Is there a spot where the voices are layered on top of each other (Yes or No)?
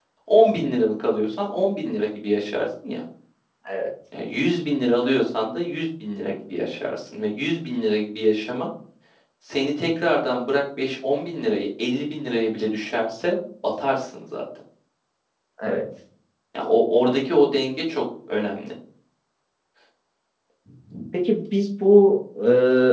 No